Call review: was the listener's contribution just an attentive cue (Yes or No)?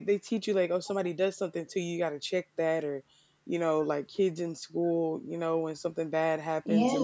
Yes